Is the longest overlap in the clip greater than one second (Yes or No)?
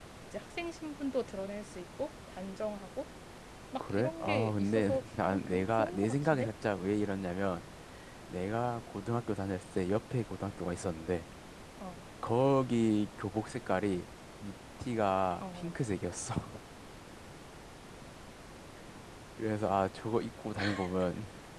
Yes